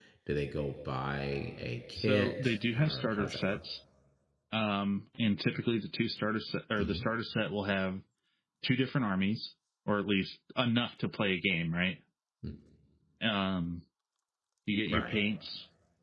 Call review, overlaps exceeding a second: present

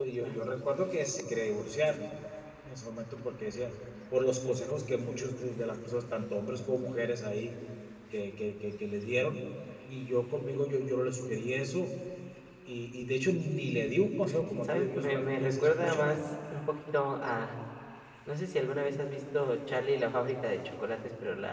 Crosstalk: present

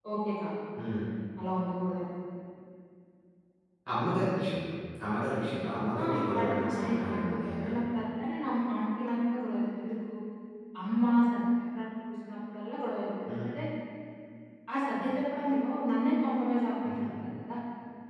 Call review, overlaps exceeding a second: present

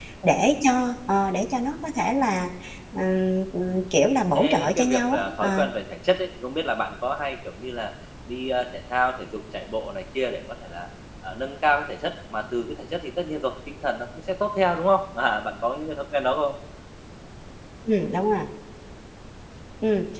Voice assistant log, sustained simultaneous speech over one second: present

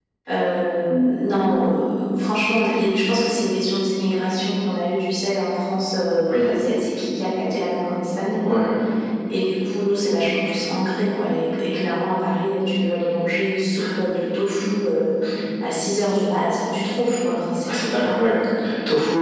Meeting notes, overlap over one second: none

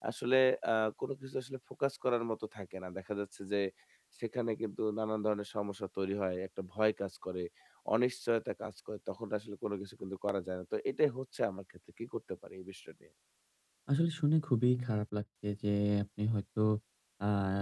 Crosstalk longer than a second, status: none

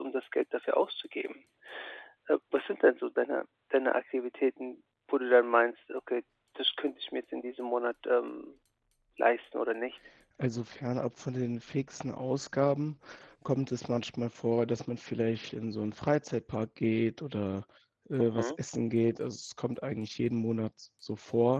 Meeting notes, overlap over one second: none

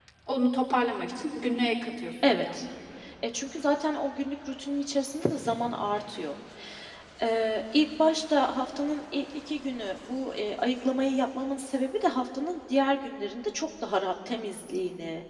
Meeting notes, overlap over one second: none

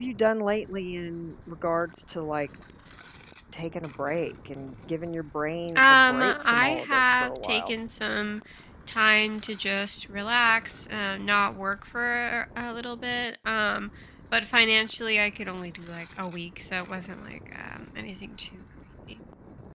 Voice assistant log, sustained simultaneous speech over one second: present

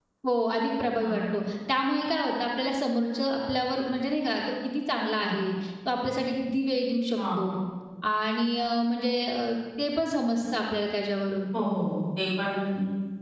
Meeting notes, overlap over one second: none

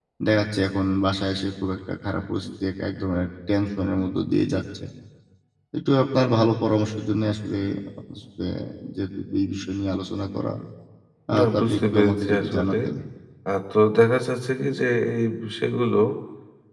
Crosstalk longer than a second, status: present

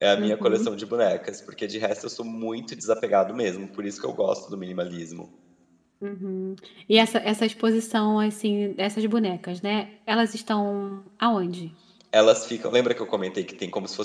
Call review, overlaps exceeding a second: none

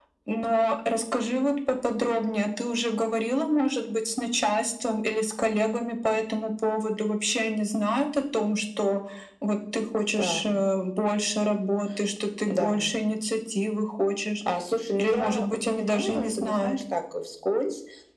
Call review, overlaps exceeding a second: present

